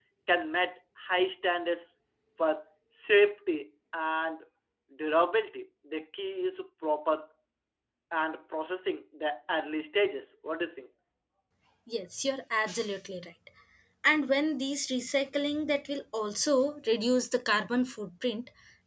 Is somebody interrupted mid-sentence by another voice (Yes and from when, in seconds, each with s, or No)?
No